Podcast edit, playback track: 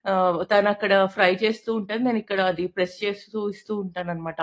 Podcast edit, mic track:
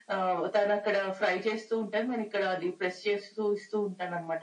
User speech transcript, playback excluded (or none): none